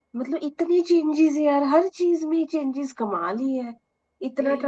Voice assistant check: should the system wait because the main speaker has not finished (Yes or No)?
Yes